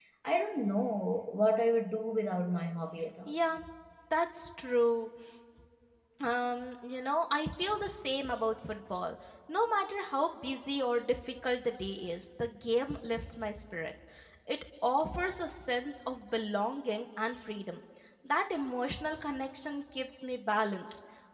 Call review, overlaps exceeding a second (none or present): none